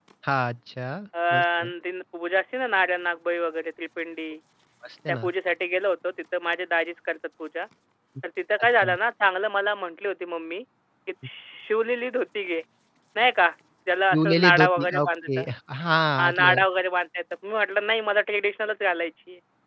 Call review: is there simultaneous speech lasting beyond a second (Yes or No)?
Yes